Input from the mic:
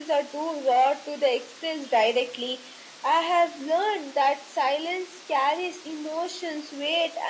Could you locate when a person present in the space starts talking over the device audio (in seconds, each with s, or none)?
none